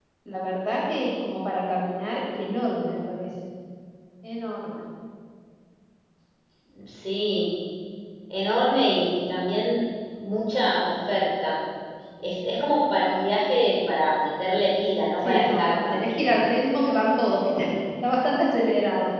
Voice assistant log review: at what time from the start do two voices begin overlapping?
15.2 s

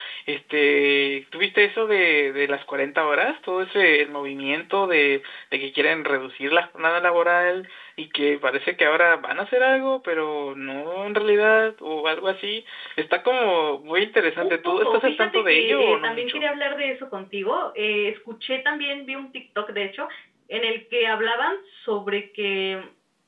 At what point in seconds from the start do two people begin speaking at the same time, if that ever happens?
14.4 s

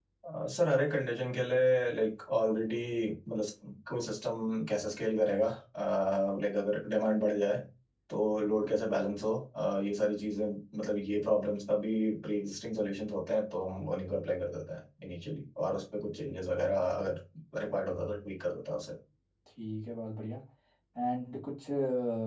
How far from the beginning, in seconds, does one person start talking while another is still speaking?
none

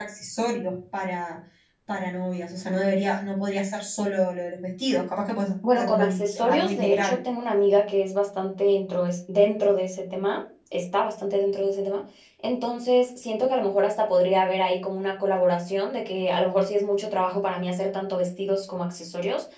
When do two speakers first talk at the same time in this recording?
5.6 s

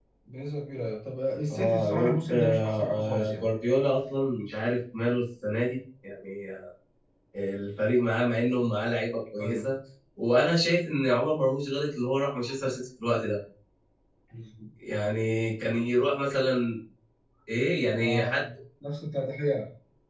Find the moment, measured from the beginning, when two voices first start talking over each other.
1.5 s

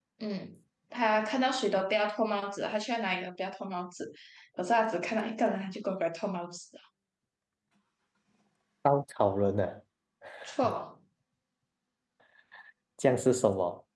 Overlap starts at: none

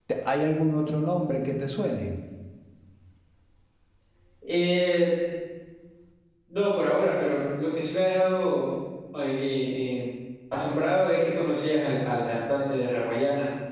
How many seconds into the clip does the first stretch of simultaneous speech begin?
none

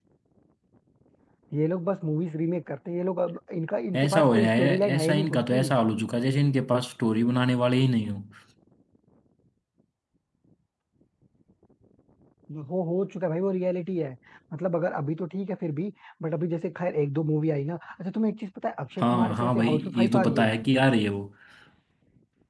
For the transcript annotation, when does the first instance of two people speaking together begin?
4.0 s

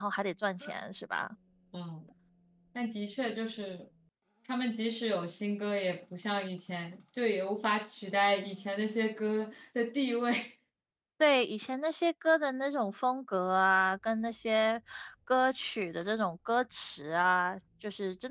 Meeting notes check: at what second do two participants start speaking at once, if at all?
none

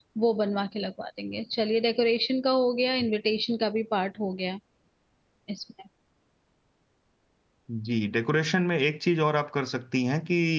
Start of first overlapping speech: none

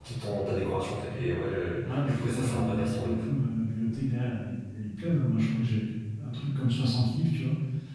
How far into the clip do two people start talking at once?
1.8 s

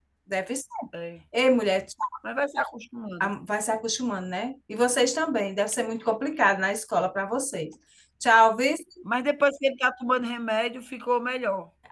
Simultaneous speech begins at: none

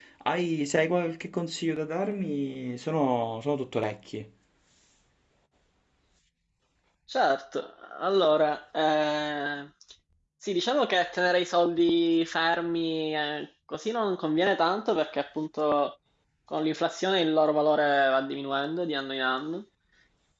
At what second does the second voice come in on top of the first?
none

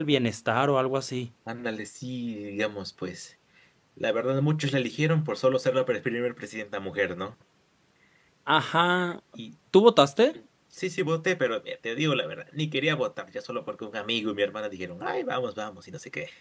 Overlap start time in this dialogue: none

